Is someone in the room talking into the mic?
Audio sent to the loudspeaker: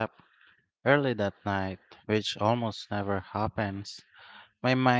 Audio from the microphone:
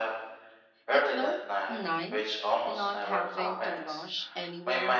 Yes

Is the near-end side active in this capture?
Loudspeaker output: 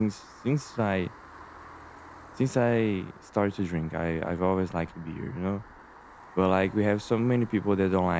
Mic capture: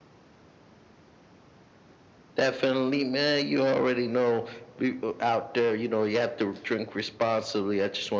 Yes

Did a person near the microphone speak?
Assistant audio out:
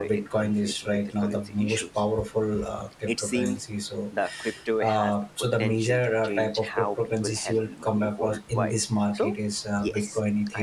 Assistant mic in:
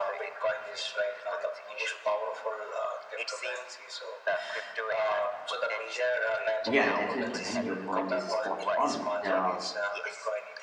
Yes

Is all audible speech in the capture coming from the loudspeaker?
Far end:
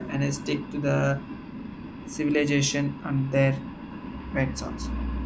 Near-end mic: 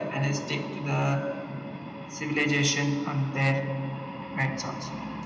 Yes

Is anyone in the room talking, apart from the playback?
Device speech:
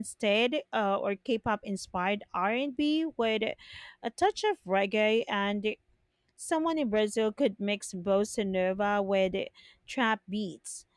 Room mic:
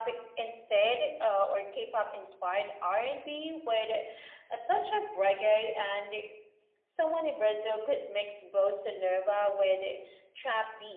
No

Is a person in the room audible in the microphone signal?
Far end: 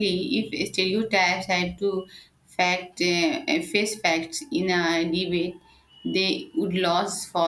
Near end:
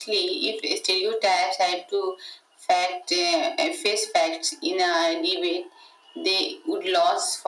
No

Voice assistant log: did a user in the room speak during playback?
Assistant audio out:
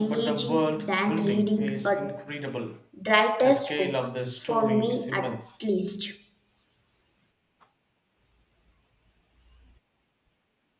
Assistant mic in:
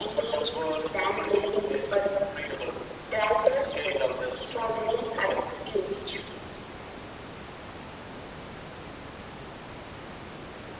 No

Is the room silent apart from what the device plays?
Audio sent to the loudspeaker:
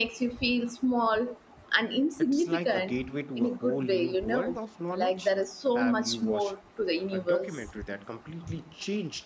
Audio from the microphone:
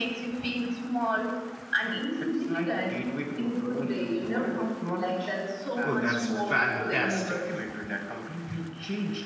No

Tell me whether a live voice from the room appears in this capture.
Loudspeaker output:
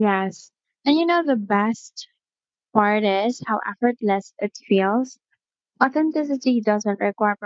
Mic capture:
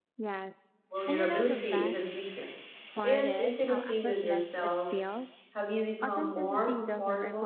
Yes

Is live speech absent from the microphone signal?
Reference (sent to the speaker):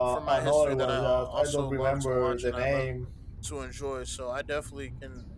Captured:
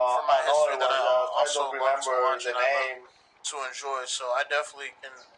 Yes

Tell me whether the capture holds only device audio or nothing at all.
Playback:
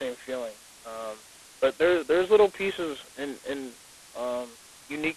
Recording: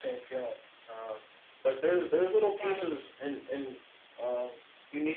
No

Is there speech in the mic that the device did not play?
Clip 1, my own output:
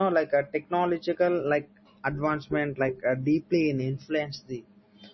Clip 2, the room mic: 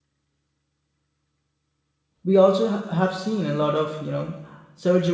Yes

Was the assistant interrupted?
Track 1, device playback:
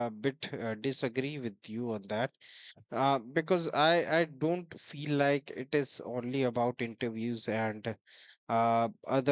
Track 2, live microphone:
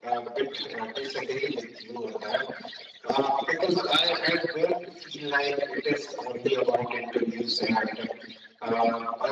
No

